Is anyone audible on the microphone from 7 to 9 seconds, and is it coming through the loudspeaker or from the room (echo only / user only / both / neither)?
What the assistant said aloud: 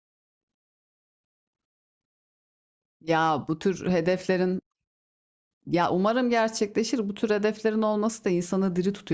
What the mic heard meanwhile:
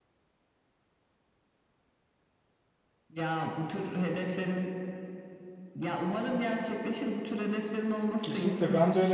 both